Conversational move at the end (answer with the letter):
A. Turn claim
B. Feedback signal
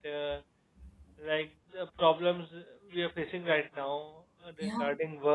B